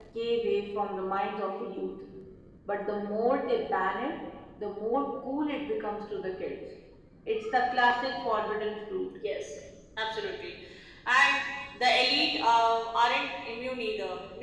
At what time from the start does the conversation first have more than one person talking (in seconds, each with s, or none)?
none